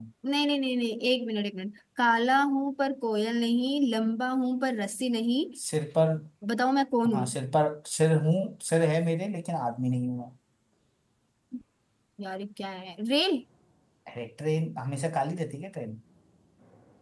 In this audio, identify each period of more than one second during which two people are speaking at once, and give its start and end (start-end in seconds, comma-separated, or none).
none